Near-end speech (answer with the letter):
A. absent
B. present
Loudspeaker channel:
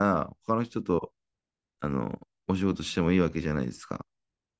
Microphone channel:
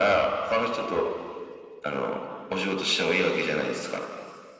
A